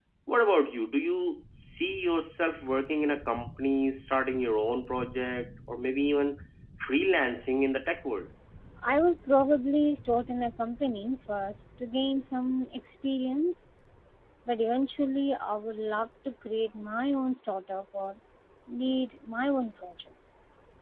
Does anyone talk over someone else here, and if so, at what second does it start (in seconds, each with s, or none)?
none